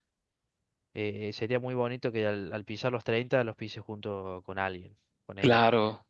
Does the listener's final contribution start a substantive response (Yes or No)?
Yes